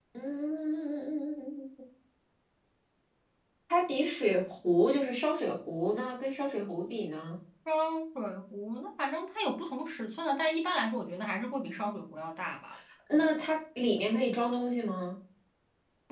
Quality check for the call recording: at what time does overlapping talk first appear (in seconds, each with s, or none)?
none